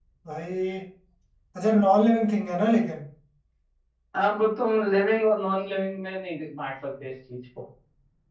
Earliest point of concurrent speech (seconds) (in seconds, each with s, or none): none